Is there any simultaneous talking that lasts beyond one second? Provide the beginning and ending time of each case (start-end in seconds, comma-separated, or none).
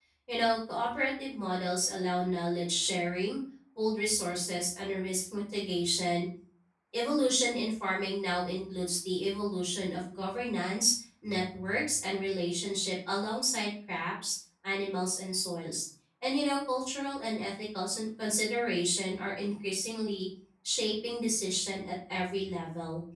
none